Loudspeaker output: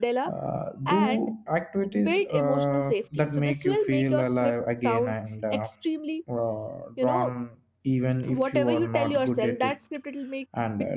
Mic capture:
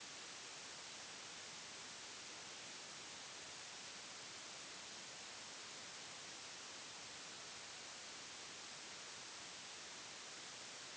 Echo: none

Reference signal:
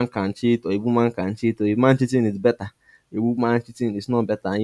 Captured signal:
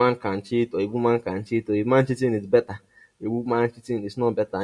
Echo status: present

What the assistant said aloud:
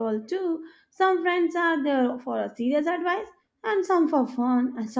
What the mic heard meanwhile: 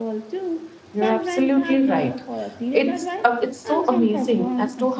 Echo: present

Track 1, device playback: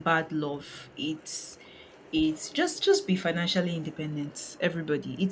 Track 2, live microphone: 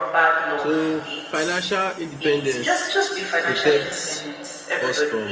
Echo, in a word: present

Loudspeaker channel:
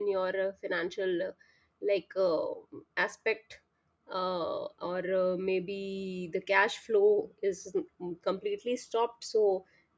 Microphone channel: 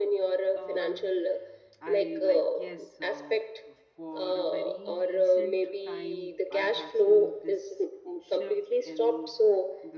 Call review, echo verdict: present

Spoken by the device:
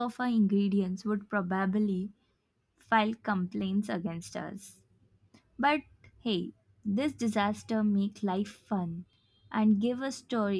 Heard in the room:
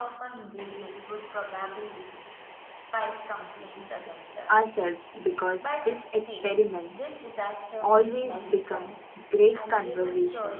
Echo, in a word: present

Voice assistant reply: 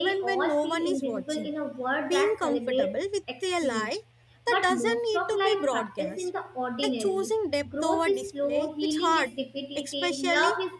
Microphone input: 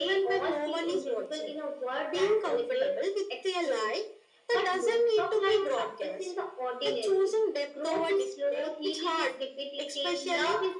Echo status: present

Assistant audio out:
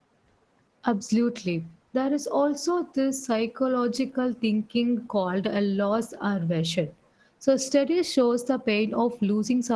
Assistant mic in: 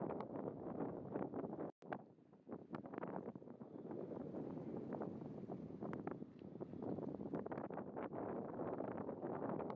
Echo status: none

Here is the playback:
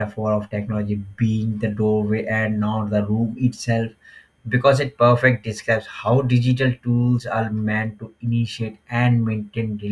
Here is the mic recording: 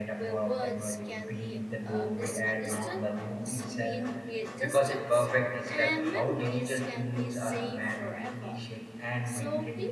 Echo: present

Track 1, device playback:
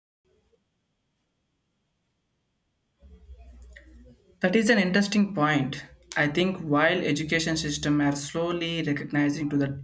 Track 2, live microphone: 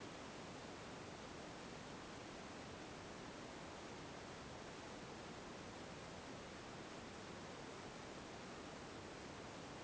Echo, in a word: none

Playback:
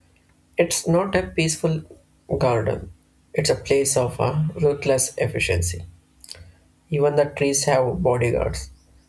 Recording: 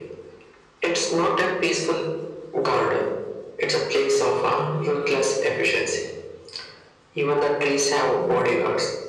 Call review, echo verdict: present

